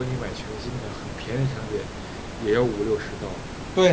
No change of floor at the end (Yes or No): No